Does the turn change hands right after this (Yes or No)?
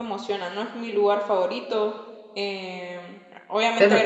No